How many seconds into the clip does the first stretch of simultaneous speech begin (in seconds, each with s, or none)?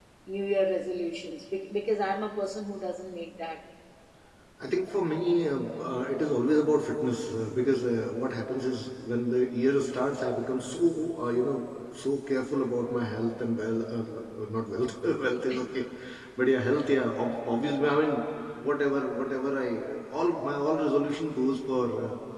none